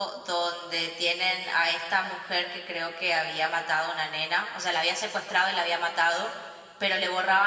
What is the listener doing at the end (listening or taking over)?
listening